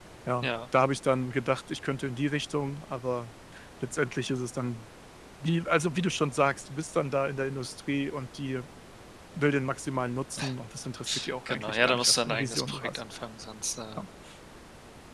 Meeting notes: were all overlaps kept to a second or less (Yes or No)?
No